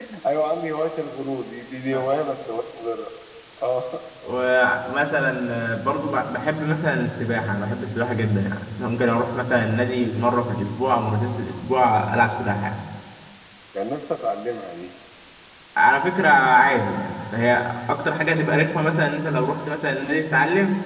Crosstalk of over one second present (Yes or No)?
No